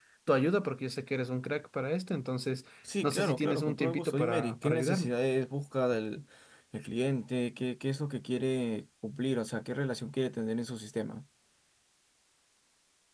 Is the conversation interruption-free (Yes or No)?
No